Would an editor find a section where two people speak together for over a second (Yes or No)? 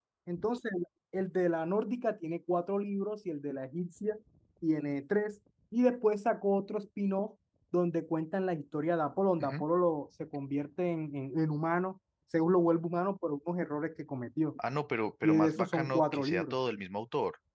Yes